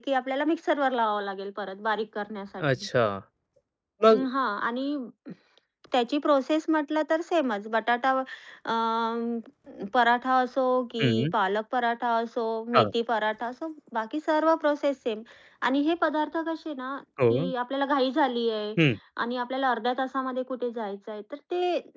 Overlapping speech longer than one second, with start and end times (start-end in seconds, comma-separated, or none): none